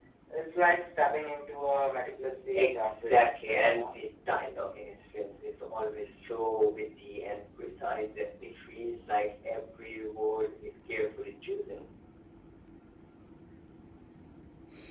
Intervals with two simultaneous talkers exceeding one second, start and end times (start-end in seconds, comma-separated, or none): 2.5-3.8